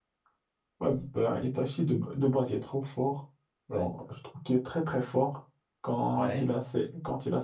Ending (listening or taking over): listening